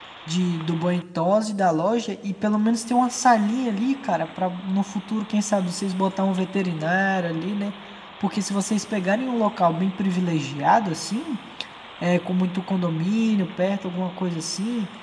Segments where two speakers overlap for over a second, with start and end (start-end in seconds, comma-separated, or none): none